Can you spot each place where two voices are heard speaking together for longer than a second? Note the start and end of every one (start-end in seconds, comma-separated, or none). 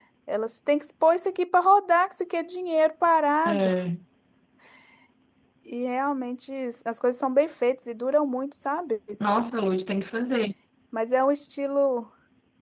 none